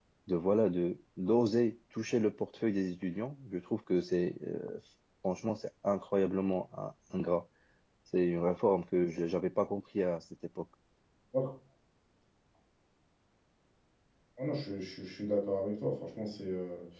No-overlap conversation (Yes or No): Yes